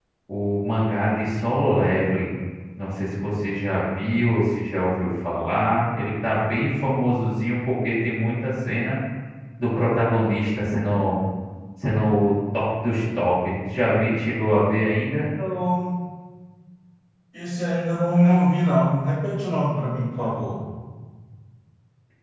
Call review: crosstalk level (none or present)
none